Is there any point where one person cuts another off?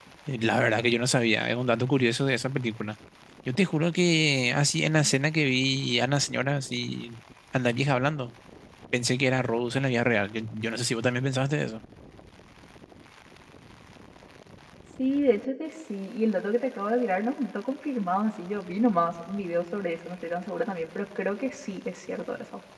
No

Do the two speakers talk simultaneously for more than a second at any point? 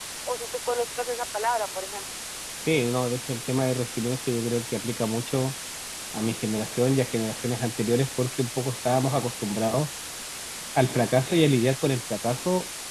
No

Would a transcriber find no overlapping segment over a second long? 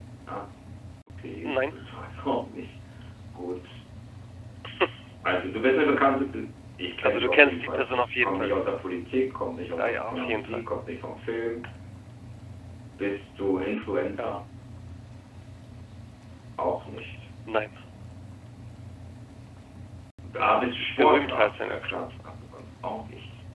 No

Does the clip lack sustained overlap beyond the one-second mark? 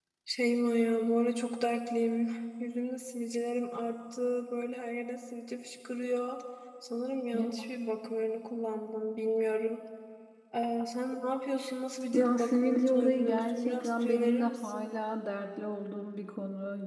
No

